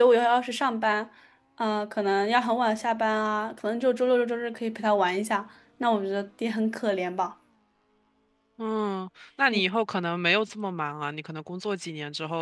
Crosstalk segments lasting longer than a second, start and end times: none

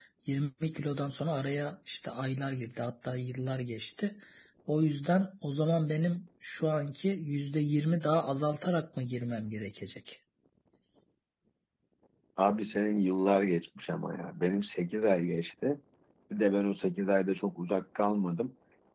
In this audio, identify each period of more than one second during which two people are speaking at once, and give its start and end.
none

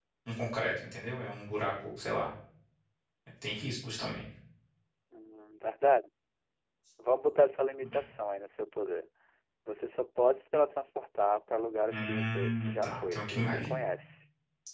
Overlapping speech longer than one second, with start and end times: 11.9-13.7

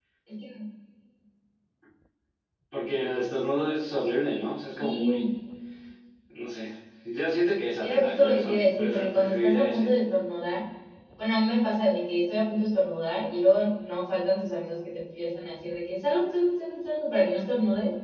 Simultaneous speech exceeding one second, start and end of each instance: 7.8-9.9

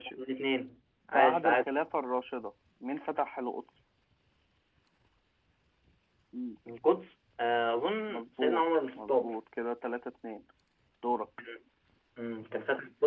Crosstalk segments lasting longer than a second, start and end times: 8.1-9.3

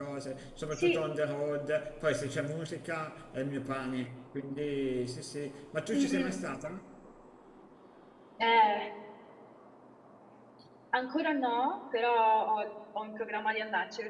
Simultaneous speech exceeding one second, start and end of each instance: none

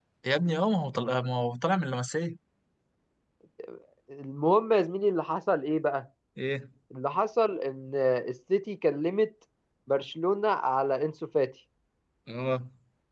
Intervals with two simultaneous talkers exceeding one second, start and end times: none

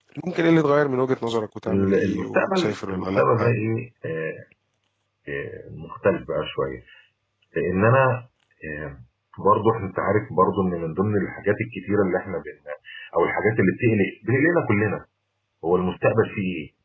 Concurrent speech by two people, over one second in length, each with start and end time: 1.7-3.5

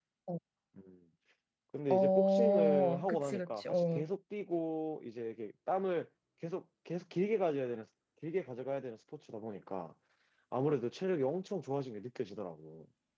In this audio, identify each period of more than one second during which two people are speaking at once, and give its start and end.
1.9-4.1

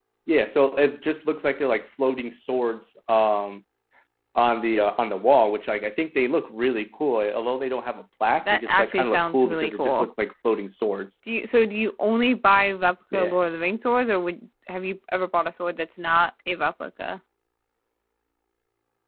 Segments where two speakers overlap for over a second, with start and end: 8.5-10.1

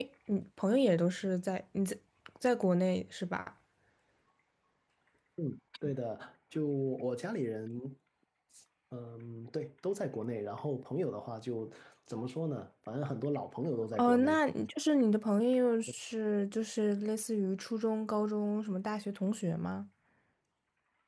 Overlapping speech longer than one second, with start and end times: none

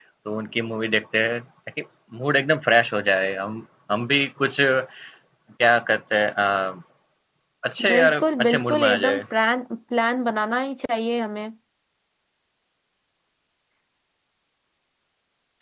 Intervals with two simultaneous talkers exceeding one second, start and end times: 7.9-9.2

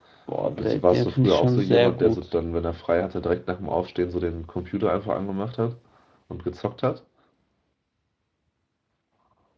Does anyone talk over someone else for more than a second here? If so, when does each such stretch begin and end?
0.6-2.2

